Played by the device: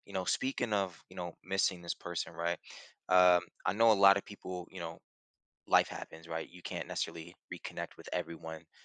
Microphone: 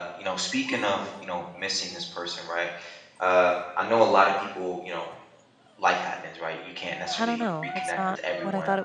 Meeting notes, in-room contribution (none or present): present